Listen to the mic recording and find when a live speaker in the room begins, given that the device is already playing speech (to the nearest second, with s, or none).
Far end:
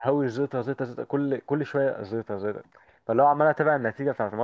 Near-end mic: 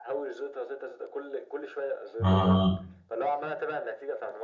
2 s